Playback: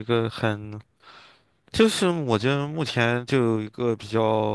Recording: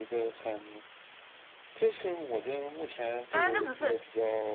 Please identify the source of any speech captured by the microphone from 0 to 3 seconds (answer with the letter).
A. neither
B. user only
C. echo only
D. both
C